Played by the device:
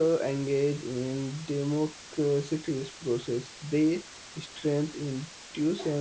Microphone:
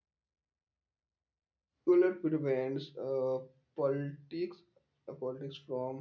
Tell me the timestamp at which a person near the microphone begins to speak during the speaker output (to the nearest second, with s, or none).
2 s